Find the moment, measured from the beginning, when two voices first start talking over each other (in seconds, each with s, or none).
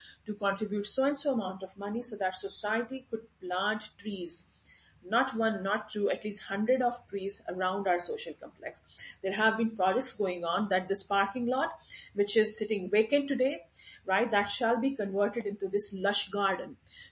none